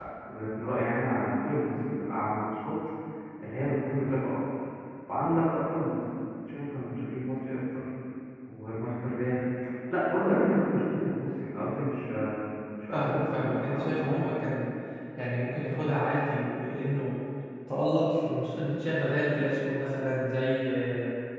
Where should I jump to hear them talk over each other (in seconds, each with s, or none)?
12.9 s